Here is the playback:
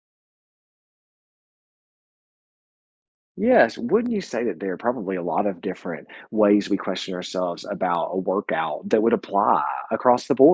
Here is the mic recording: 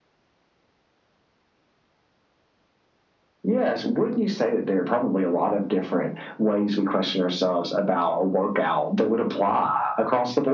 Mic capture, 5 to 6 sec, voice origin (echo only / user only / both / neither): echo only